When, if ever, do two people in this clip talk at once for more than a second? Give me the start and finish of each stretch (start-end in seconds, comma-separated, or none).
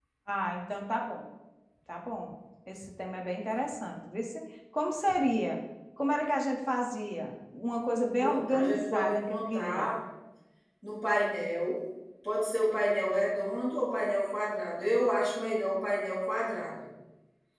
8.2-9.9